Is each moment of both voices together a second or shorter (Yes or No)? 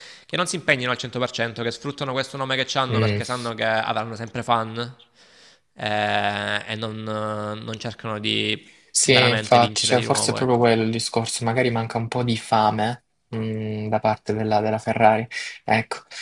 No